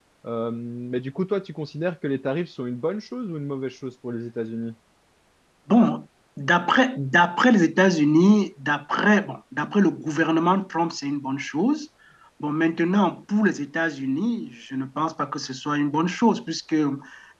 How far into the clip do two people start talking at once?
none

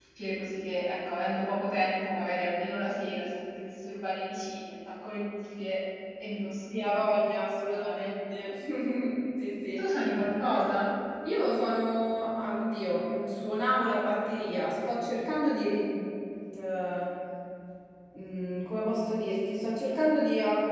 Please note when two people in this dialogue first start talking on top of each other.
6.7 s

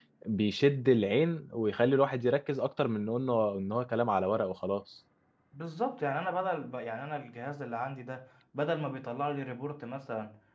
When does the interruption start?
none

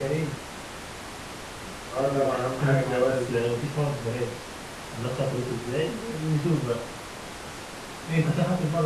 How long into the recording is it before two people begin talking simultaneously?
2.0 s

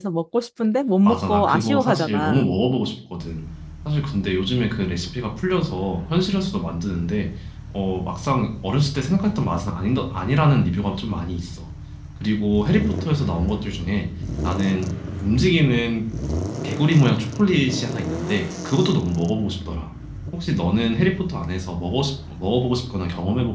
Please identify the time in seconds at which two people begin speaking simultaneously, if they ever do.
1.1 s

